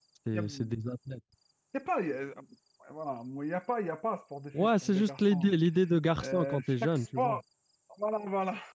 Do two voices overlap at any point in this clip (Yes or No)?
Yes